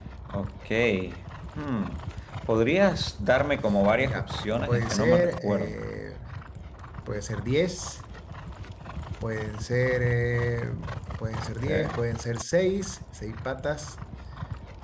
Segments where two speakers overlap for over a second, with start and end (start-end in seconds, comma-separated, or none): 4.0-5.8